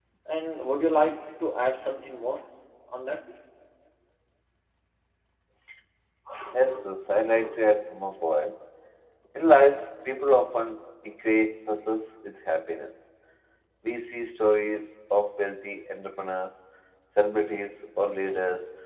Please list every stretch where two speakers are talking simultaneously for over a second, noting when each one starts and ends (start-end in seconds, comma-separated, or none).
none